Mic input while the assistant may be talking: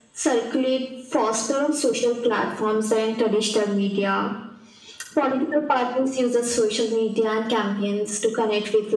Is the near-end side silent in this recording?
Yes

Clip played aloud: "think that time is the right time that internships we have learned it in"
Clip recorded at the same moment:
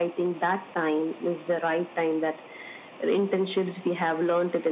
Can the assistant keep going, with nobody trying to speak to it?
Yes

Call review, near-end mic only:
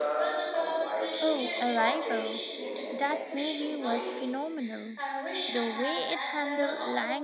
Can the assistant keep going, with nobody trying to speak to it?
No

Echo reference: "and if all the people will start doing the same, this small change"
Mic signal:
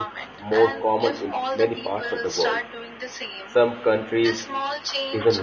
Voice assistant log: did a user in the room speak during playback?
Yes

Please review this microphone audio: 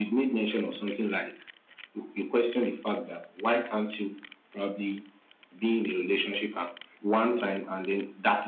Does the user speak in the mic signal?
No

